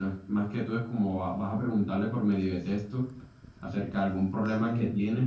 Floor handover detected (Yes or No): No